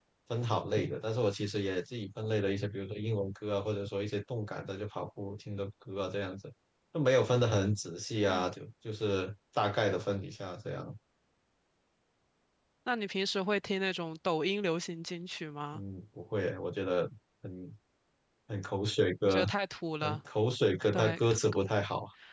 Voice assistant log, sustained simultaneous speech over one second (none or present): none